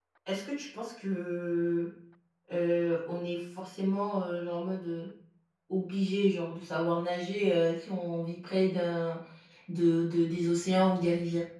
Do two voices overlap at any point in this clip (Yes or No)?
No